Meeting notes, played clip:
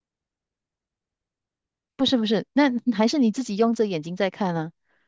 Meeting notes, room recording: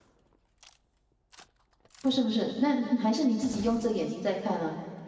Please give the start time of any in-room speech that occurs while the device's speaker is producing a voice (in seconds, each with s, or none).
none